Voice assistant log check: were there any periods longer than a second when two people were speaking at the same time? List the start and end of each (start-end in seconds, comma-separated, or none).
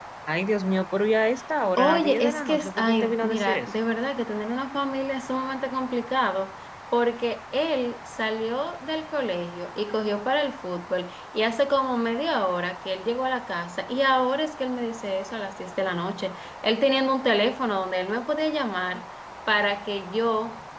1.8-3.7